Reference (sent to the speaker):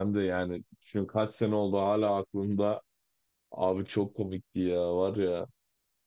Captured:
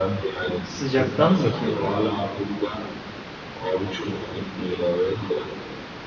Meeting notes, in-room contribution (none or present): present